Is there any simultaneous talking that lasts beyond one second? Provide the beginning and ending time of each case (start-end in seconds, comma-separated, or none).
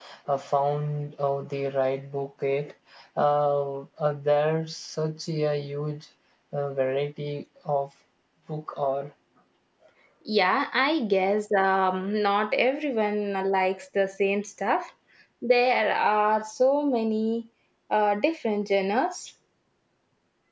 none